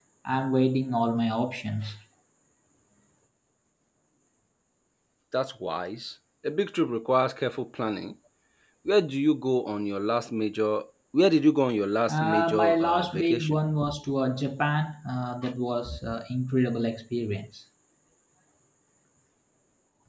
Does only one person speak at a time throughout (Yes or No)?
No